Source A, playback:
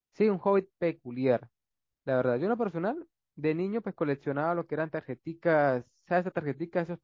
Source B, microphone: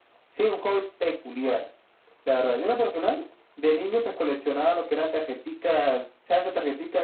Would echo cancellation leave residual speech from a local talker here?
No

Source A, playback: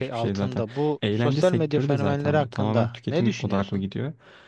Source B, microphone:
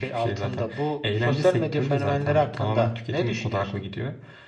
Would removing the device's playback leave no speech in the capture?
Yes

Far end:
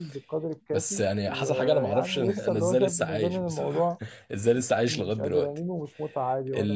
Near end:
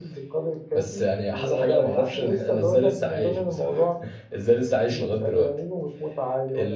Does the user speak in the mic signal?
No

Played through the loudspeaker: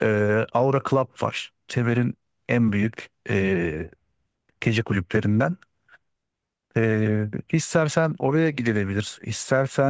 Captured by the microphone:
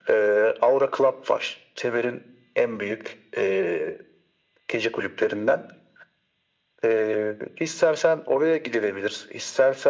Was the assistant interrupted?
No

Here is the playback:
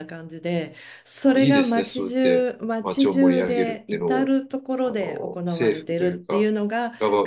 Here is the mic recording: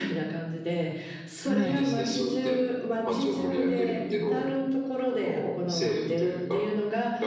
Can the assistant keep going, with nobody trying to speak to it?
No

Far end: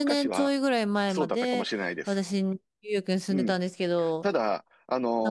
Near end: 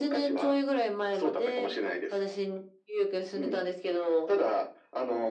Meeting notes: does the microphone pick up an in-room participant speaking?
No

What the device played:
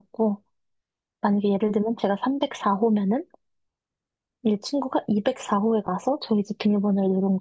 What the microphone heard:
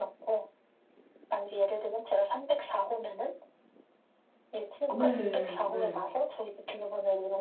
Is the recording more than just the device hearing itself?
Yes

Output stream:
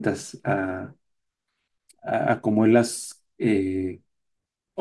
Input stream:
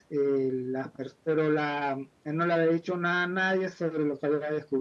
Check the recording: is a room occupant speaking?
Yes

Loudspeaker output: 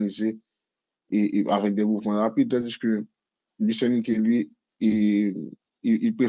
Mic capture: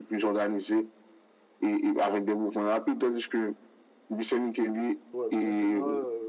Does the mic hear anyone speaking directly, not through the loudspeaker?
Yes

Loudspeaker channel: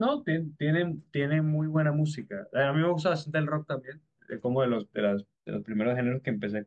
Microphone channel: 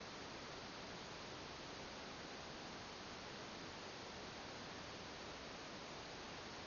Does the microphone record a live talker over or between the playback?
No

